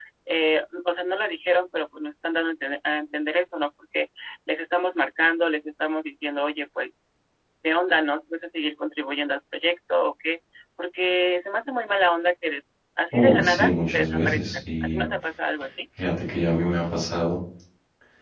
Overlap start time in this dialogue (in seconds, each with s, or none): 13.1 s